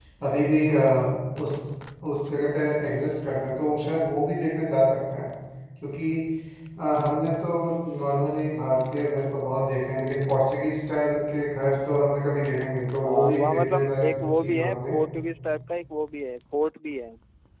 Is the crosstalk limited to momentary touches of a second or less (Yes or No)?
No